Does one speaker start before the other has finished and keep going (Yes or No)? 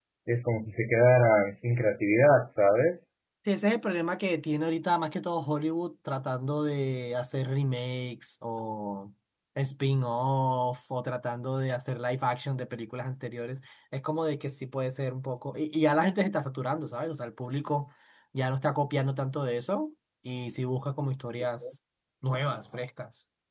No